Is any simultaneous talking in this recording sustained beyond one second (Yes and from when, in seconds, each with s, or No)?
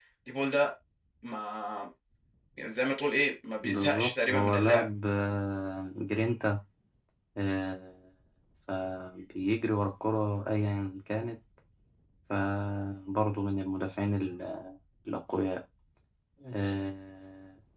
Yes, from 3.6 s